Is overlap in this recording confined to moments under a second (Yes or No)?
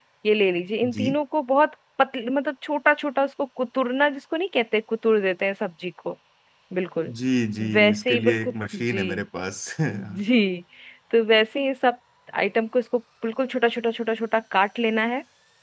No